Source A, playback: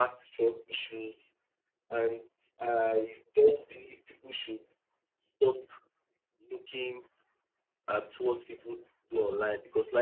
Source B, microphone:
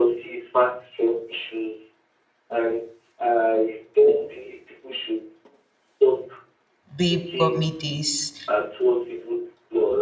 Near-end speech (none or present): present